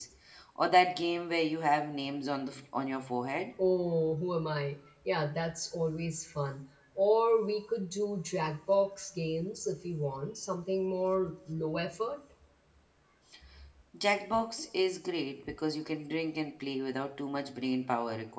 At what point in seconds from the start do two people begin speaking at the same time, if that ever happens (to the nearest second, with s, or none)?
none